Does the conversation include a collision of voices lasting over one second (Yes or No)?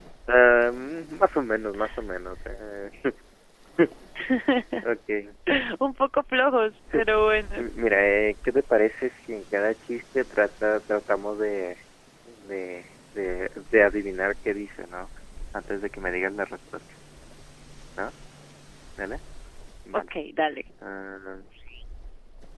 No